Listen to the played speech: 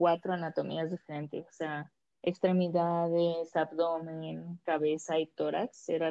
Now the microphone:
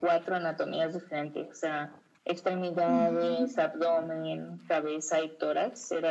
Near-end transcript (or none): Ujú.